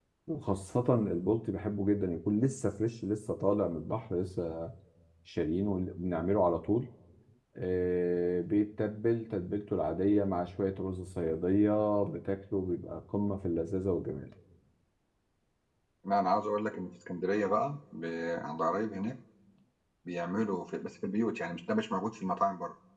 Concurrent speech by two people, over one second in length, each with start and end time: none

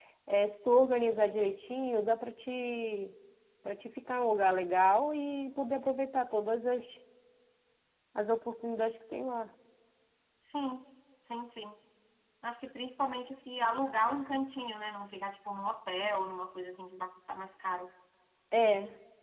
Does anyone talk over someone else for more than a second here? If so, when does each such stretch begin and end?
none

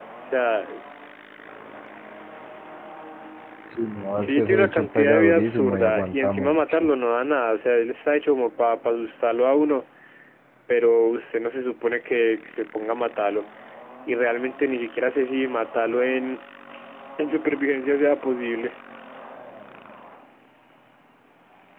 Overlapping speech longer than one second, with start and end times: 4.2-6.9

